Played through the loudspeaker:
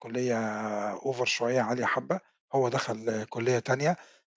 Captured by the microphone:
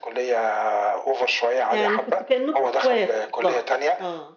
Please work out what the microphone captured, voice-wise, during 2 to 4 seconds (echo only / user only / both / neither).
both